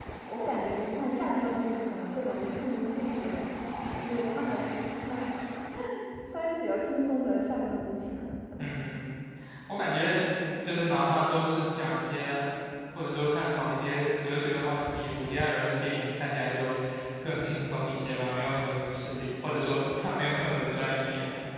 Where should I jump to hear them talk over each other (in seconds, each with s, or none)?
none